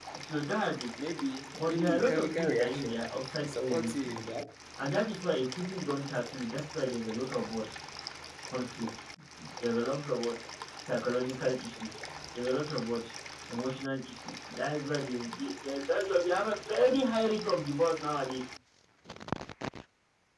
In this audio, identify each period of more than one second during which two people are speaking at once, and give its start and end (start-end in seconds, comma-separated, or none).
1.7-4.1